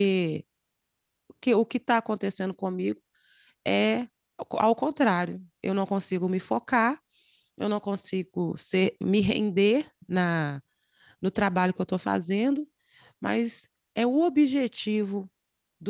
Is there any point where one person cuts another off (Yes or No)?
No